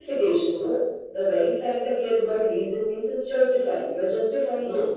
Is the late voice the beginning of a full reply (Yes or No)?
Yes